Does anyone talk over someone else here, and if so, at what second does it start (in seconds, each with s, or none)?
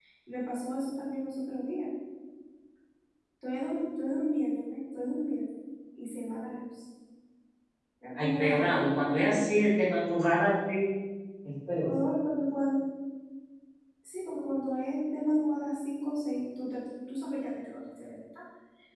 8.2 s